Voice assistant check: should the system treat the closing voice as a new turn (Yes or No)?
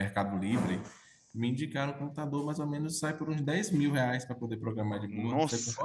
Yes